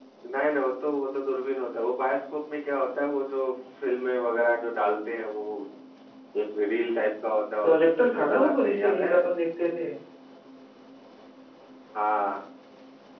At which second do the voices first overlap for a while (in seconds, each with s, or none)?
7.6 s